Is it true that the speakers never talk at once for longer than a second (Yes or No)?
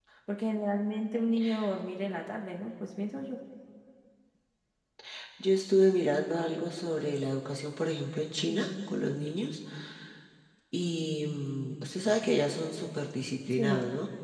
Yes